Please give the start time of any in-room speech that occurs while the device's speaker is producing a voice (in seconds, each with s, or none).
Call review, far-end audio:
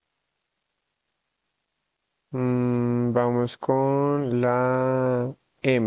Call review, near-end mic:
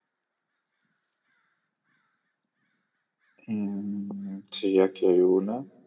3.5 s